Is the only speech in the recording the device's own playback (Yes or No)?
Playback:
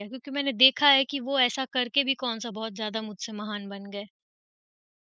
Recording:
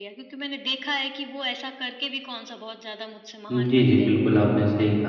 No